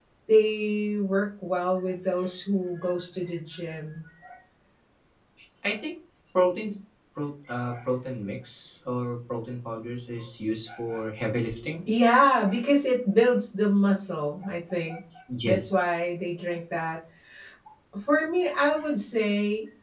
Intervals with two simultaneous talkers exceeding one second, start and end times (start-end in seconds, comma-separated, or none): none